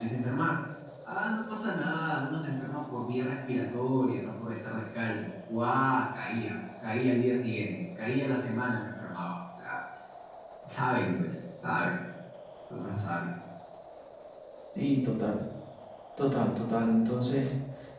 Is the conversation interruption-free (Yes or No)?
Yes